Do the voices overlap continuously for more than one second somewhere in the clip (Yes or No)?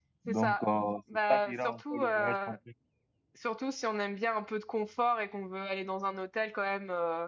Yes